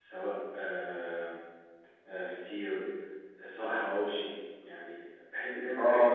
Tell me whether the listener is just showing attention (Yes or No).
No